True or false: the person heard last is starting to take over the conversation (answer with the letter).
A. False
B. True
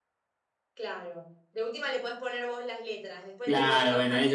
B